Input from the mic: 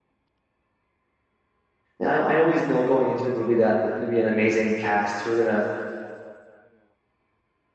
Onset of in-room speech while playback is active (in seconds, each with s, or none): 2.0 s